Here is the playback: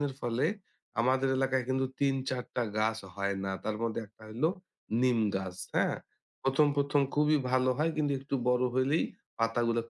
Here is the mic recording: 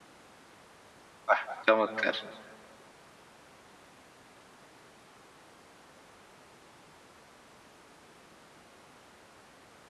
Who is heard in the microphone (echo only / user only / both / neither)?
user only